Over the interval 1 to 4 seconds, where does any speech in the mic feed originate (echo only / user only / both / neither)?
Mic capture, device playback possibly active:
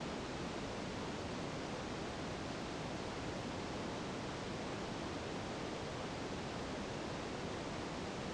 neither